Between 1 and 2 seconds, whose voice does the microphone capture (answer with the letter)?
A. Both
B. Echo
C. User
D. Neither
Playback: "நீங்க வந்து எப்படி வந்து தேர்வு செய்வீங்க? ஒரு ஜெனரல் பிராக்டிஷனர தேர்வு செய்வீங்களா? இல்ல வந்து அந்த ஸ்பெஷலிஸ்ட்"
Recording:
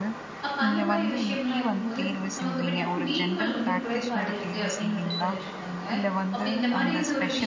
A